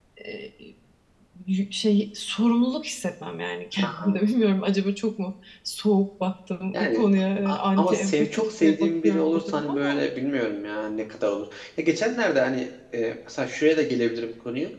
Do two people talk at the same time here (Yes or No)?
Yes